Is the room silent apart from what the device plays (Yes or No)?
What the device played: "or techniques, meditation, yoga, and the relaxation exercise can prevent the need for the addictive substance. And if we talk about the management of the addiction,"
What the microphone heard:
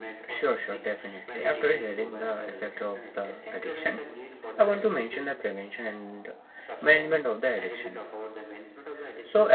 No